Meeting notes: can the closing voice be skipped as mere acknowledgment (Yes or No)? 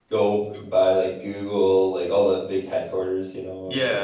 No